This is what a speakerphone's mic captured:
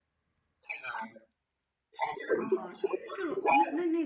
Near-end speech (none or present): present